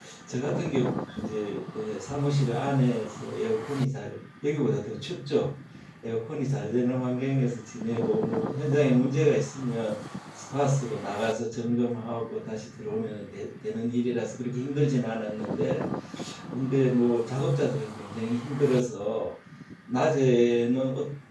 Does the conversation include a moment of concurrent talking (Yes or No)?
No